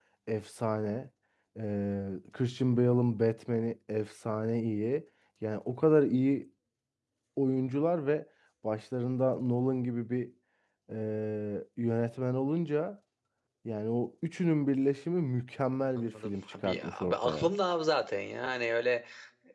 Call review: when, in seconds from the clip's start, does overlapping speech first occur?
15.9 s

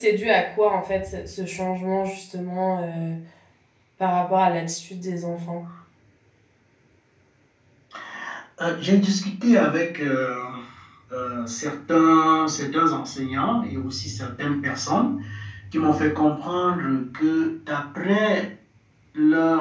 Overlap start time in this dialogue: none

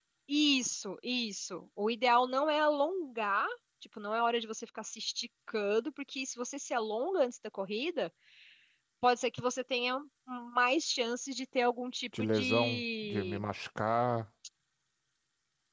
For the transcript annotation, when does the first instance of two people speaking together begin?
12.1 s

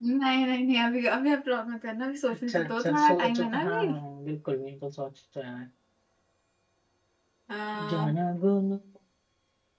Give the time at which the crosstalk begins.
2.3 s

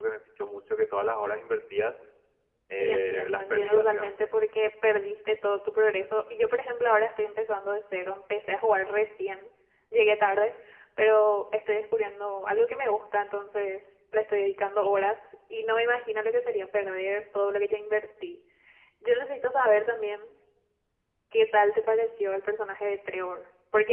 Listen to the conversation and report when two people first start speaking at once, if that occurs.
2.8 s

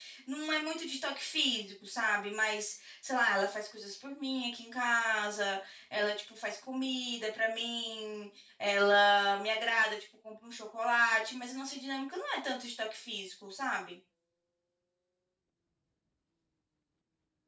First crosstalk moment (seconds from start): none

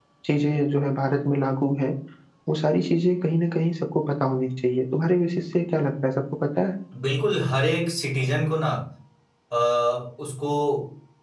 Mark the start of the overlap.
none

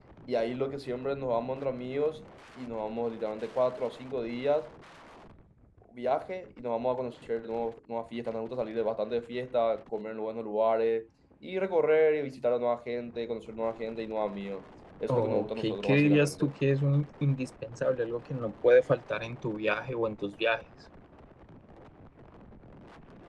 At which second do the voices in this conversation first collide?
15.1 s

